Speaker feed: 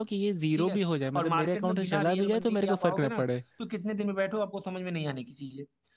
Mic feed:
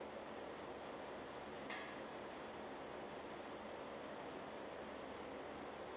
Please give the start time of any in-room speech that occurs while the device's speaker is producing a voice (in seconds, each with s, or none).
none